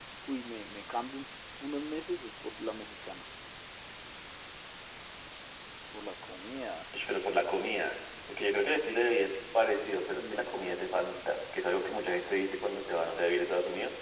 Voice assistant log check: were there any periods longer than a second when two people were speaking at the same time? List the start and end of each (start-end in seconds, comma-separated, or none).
none